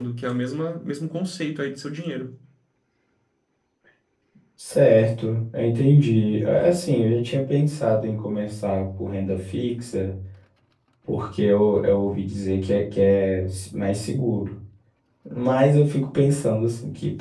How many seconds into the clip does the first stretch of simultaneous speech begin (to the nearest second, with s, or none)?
none